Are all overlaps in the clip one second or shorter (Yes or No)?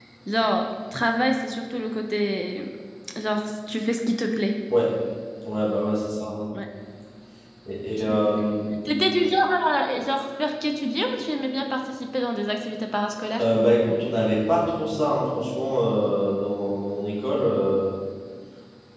Yes